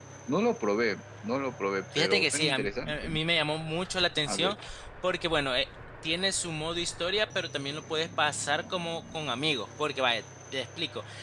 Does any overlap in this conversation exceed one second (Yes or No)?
Yes